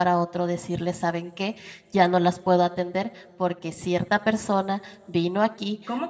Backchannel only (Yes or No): No